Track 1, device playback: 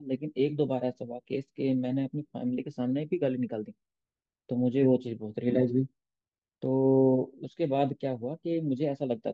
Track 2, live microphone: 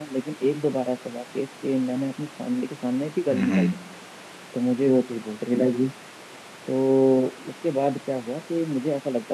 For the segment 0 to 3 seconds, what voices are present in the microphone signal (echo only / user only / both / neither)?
echo only